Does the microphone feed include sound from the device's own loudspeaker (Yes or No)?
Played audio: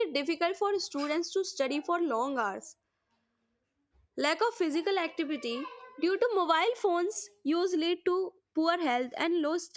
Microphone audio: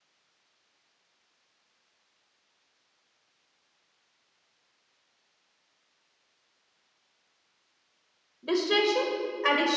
No